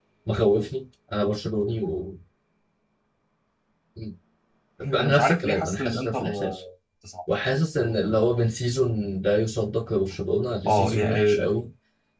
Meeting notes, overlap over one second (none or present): present